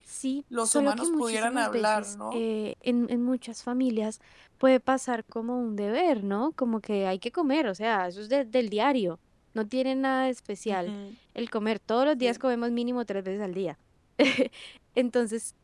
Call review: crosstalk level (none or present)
present